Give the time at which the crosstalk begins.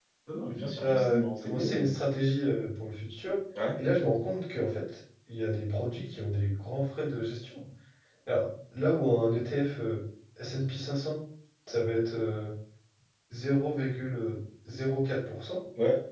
0.5 s

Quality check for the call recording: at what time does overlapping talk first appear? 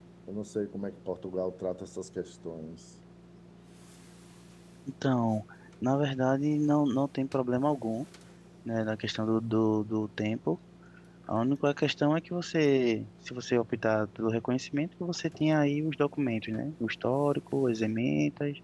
none

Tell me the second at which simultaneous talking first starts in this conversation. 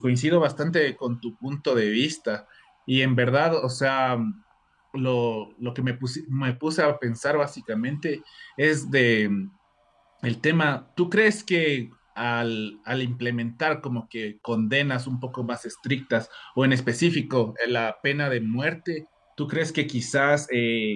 none

